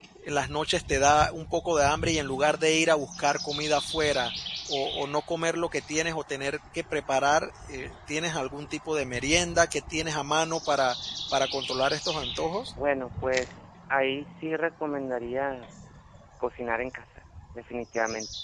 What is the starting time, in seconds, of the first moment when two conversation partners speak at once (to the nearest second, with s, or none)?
none